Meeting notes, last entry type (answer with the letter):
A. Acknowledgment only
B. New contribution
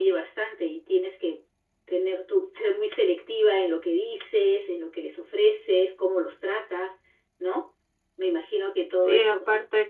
B